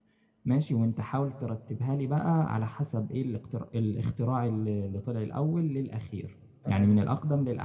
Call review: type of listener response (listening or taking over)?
listening